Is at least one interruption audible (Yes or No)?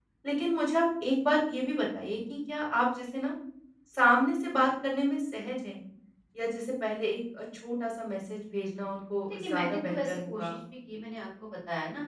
Yes